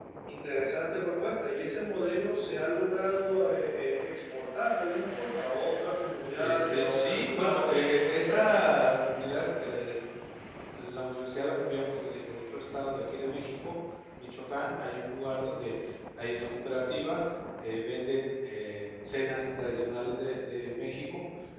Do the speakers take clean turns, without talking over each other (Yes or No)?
No